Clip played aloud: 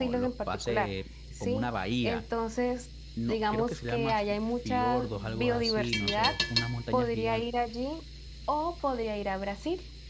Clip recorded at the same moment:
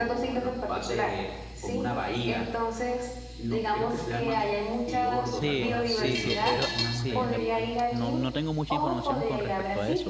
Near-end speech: present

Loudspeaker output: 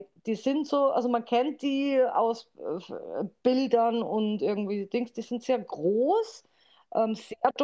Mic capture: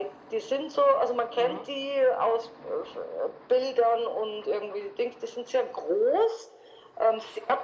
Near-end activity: present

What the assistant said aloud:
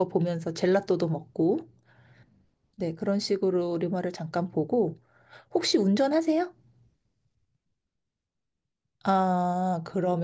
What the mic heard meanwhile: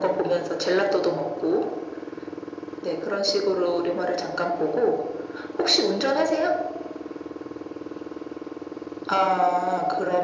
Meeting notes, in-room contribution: none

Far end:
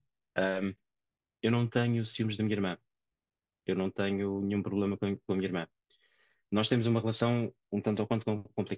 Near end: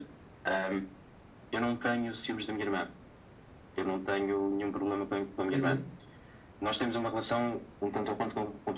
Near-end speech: present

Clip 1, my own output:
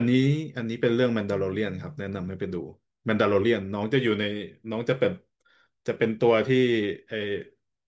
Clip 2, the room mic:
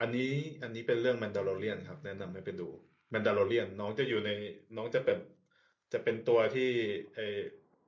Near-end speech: none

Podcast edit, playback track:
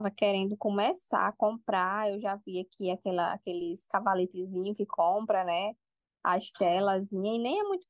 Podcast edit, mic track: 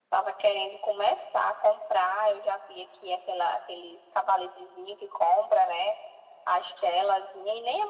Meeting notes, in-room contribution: none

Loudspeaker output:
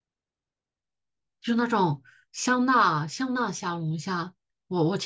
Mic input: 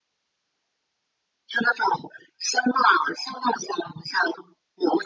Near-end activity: none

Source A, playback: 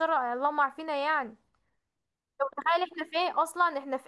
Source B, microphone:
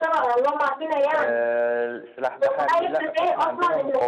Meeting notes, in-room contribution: present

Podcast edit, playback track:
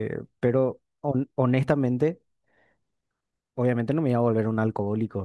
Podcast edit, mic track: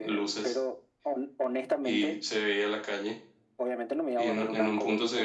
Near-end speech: present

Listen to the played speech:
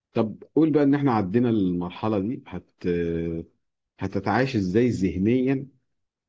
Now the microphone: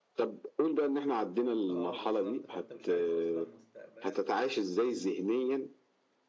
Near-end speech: present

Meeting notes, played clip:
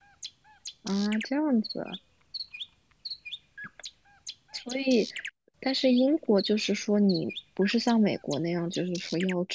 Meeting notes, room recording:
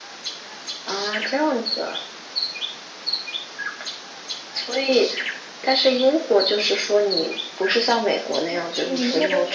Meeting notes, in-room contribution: present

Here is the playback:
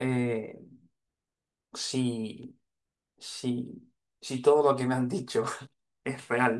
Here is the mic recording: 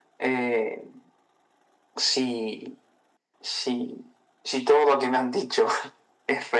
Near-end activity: none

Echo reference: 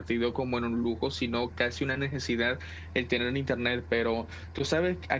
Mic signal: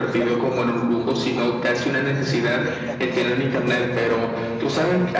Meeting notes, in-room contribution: present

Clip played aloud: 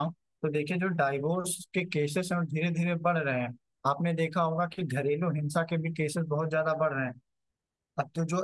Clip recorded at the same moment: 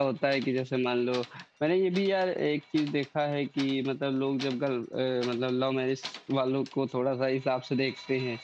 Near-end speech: present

